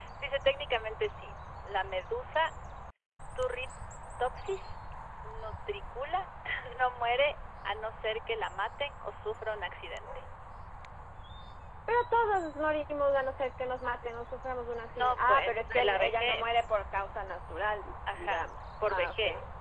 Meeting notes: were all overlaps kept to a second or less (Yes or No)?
No